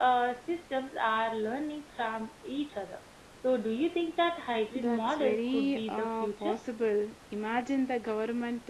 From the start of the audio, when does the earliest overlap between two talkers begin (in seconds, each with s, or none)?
4.7 s